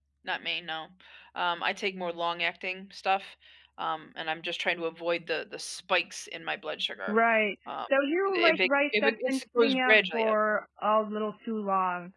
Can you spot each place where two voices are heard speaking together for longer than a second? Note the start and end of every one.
8.3-10.3

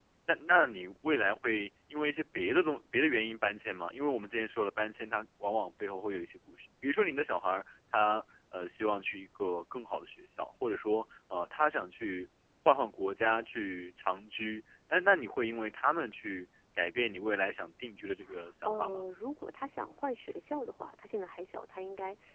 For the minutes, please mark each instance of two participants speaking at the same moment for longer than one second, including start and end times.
none

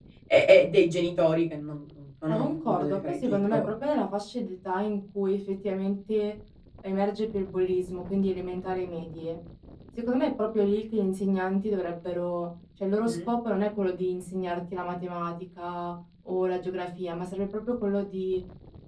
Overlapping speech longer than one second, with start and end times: 2.3-3.6

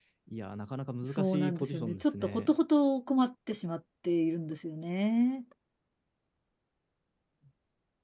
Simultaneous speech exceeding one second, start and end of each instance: 1.1-2.5

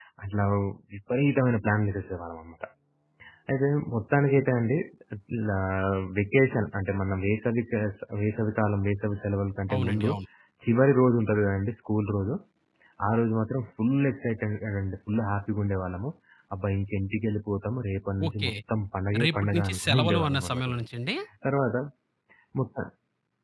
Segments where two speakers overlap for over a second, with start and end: 19.2-20.9

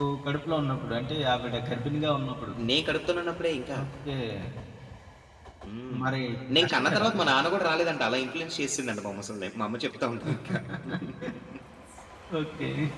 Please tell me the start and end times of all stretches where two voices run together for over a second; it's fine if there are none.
none

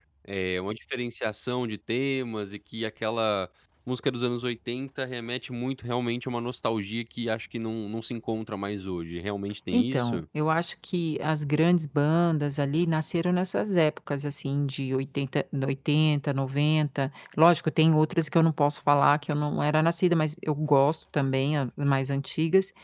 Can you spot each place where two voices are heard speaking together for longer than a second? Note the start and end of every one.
none

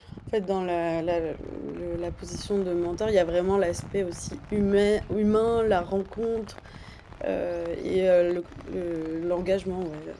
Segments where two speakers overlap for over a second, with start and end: none

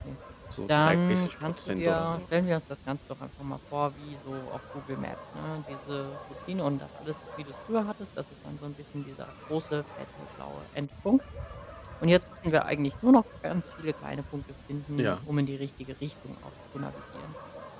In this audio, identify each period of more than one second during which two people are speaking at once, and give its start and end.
0.7-2.2

